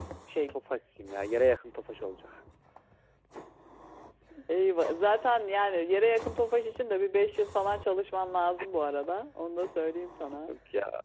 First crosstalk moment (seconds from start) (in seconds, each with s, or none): none